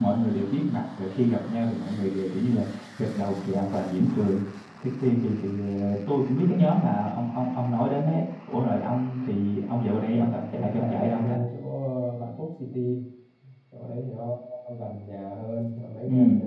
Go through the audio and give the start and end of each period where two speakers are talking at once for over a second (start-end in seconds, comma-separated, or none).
10.1-11.4